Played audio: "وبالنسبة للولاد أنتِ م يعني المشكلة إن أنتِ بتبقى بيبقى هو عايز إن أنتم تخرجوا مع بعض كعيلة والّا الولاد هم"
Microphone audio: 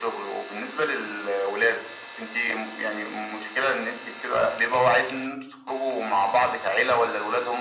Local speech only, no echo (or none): none